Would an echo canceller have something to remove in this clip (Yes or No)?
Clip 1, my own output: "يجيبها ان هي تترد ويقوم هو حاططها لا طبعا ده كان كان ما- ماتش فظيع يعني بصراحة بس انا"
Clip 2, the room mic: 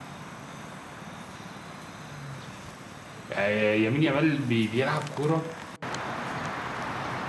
No